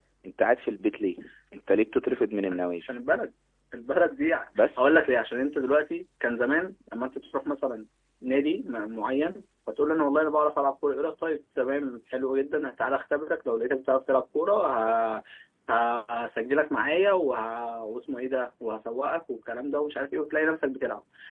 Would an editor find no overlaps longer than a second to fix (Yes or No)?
Yes